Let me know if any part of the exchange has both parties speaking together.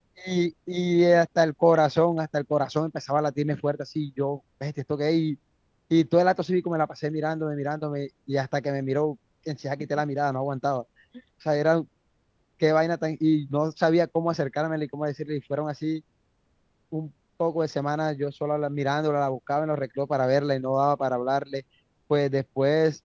No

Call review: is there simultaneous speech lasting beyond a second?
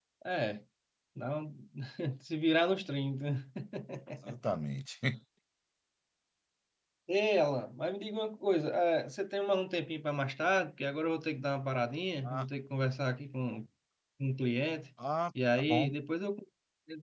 No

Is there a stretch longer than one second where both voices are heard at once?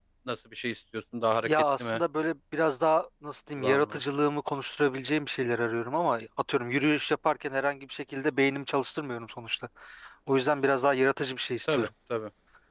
No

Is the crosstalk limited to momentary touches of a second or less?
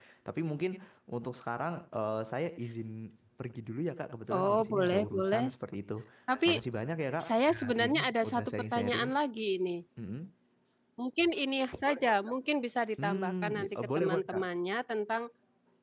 No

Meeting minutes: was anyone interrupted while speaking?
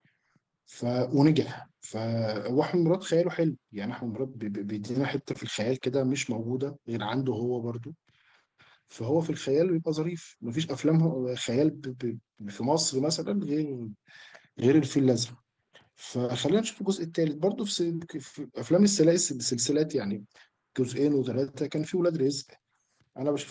No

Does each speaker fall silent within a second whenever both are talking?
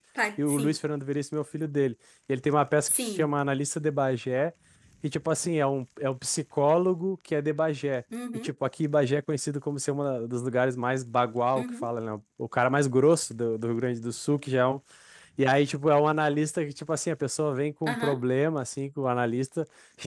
Yes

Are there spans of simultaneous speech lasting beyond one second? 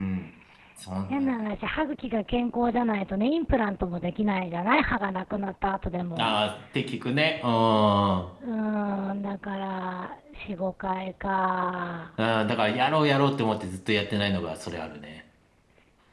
No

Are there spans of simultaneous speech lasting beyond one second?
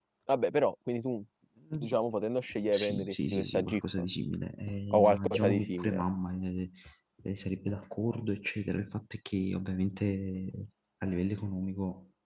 Yes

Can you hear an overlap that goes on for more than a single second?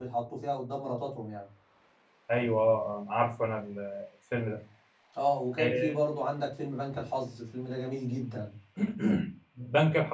No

